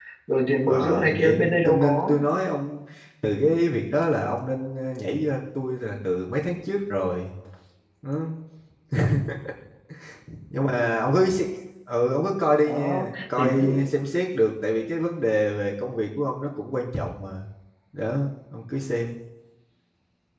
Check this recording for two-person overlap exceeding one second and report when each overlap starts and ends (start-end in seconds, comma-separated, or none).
0.7-2.1, 12.7-13.9